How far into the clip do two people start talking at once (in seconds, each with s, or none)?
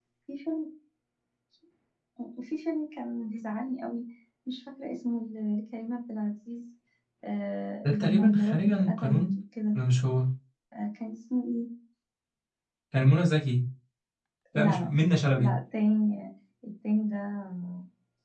7.8 s